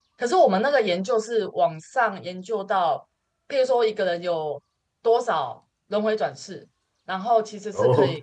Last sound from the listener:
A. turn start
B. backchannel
B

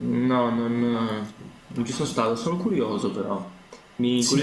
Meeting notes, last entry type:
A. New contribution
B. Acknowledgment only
B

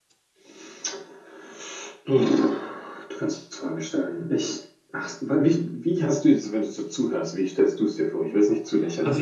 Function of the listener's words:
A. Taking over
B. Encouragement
A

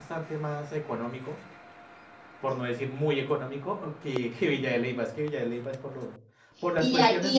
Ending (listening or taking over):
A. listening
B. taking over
B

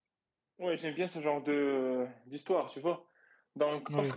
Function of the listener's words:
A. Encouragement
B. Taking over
A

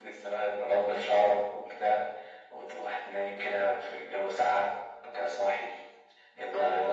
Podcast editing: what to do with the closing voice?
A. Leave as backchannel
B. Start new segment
A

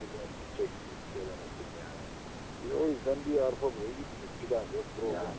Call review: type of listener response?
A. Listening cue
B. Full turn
A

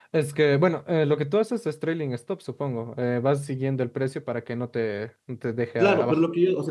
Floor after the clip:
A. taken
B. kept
A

